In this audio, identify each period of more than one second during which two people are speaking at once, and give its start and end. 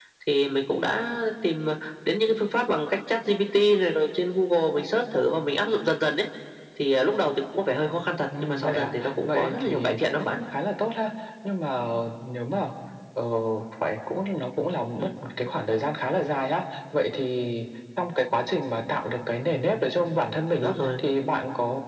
8.4-10.4

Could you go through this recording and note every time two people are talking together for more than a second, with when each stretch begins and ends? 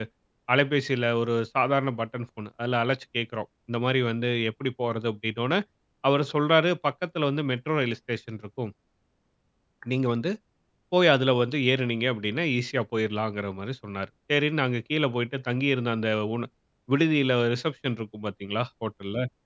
none

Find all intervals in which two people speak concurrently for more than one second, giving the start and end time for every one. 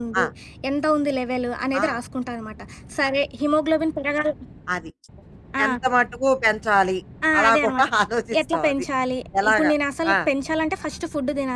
none

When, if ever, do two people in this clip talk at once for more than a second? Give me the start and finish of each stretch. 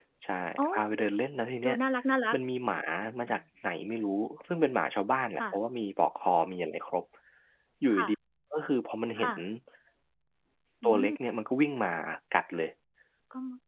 none

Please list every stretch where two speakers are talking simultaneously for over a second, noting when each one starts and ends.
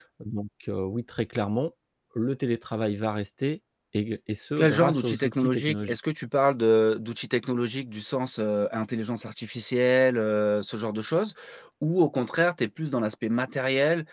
4.6-6.0

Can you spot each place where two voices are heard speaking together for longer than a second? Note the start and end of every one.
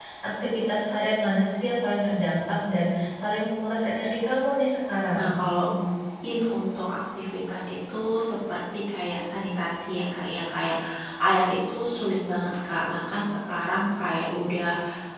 none

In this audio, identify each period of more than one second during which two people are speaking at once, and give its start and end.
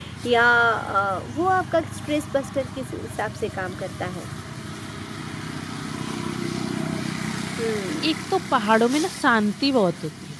none

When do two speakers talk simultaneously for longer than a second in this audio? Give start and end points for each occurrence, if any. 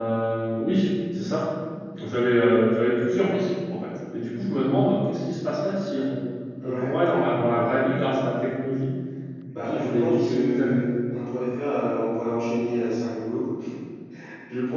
9.5-10.8

